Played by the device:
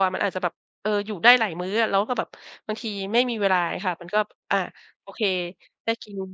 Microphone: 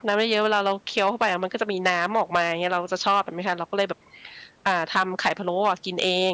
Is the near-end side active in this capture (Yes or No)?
Yes